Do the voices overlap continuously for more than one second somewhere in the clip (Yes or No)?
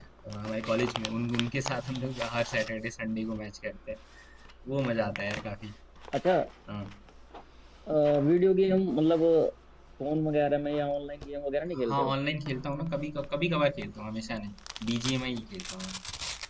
No